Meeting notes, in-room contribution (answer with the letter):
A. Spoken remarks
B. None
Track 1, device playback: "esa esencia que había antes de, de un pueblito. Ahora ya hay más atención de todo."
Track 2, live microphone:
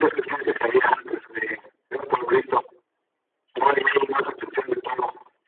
B